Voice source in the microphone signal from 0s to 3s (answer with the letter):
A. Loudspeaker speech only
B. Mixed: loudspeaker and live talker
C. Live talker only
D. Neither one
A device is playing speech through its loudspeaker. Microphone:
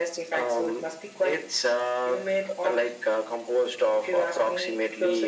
A